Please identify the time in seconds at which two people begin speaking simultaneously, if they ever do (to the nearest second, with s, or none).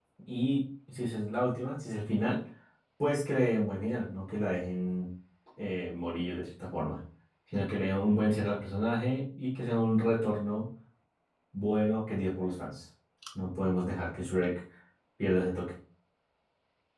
none